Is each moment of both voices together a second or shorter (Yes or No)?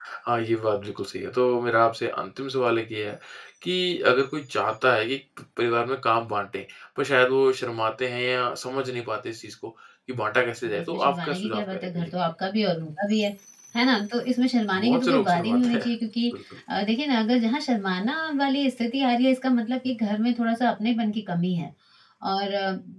No